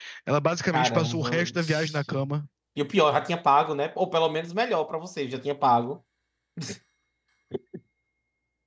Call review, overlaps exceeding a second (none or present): present